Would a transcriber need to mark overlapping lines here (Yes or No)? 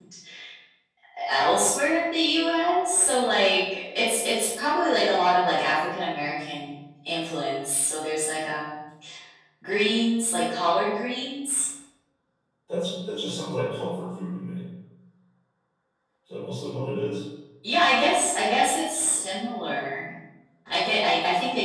No